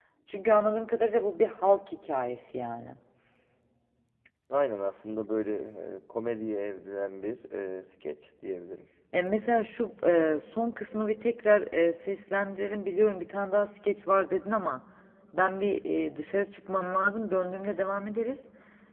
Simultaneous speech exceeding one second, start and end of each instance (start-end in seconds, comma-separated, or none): none